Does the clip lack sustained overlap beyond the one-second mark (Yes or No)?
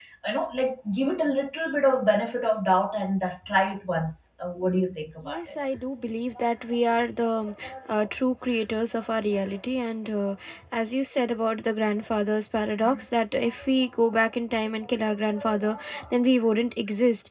Yes